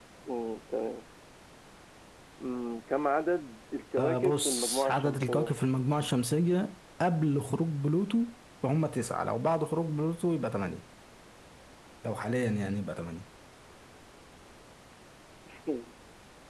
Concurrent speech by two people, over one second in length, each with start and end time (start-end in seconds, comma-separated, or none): 4.0-5.5